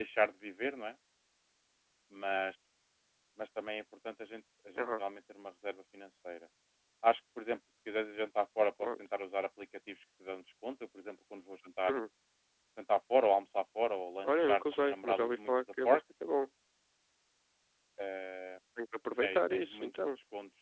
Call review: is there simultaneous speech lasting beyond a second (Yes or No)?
Yes